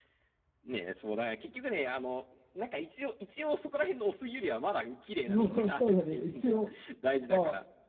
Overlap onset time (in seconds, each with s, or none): 5.3 s